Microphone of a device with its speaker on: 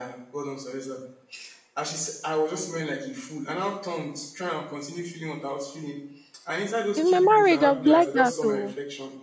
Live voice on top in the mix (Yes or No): Yes